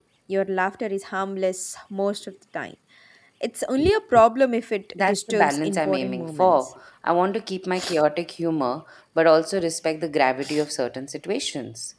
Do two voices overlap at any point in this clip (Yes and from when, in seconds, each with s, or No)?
Yes, from 5.0 s